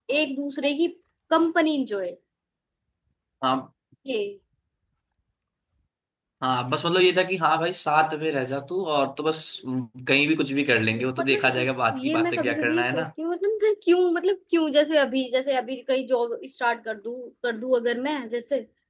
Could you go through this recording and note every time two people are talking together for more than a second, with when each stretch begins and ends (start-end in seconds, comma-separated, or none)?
11.2-13.0